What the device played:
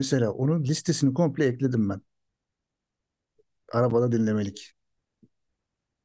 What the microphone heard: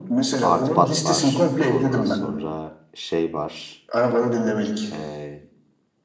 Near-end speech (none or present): present